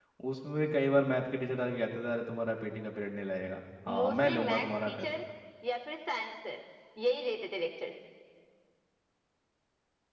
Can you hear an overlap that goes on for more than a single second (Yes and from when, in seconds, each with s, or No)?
Yes, from 3.9 s